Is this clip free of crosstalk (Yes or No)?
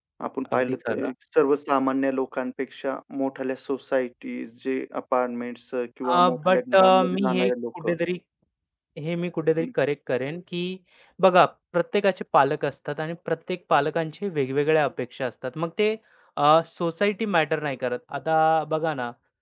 No